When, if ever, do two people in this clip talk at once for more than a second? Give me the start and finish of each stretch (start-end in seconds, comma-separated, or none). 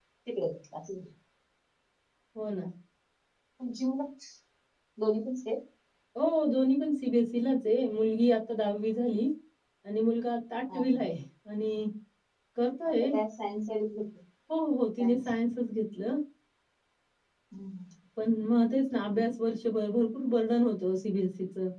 none